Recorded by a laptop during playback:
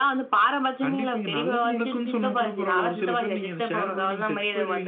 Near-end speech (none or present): none